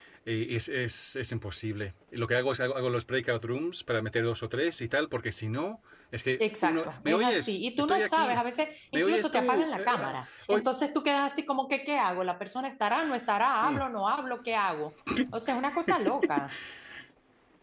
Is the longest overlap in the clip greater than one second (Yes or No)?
Yes